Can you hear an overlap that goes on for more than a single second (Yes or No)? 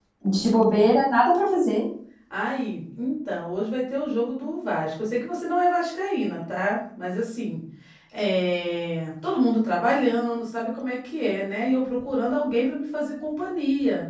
No